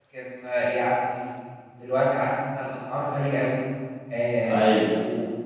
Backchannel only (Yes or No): Yes